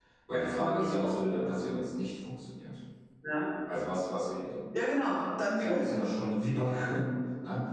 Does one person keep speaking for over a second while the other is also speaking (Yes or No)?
Yes